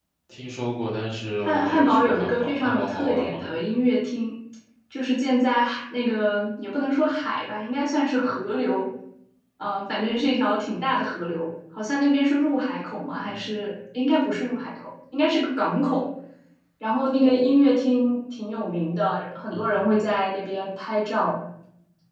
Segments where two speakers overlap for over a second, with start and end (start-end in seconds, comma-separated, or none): 1.4-3.4